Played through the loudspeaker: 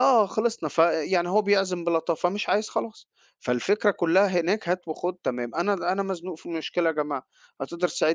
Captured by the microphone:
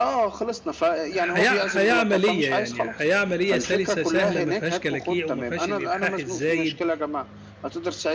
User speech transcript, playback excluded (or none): حياة حياة عملية يعني، حياة عملية سلسة سهلة ما فيهاش كلاكيع وما فيهاش الإلحاح الزايد